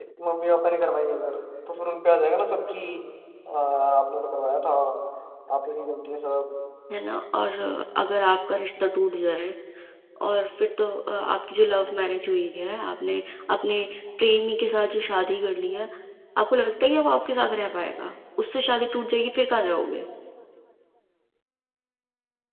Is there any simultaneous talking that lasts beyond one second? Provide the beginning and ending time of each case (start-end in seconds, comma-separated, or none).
none